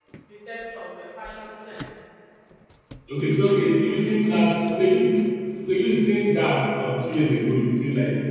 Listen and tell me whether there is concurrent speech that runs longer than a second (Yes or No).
No